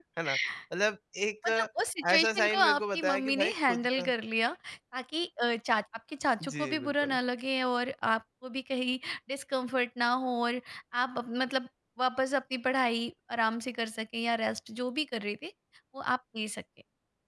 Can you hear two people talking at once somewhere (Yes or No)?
Yes